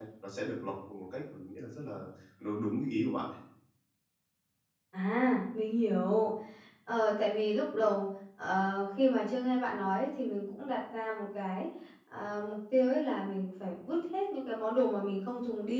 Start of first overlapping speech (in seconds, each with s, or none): none